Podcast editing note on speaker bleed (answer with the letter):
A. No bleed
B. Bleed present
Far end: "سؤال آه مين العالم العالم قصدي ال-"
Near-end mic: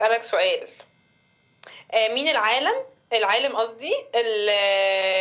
B